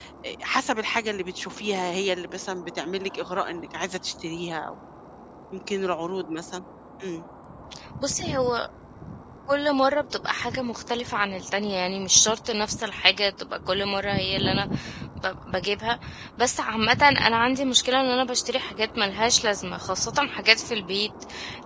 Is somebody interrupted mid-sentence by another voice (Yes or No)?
No